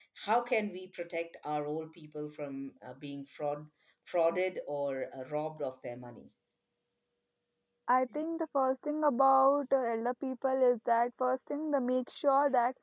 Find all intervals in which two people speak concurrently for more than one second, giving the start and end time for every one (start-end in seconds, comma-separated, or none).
none